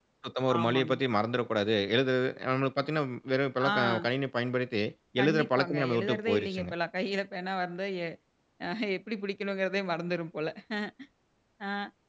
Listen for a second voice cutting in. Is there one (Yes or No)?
Yes